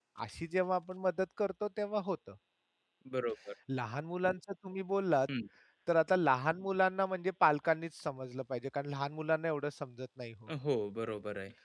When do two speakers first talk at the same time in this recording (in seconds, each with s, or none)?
none